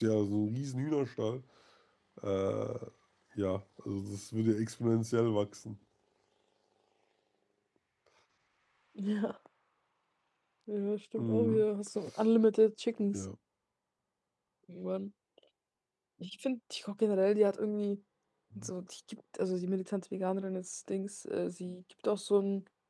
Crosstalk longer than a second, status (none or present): none